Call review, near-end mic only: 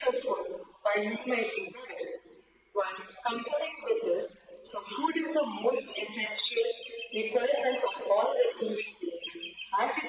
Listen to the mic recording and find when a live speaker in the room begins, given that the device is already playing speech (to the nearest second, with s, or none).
none